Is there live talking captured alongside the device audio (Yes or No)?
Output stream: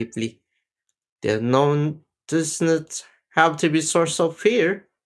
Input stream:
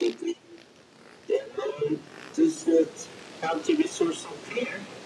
No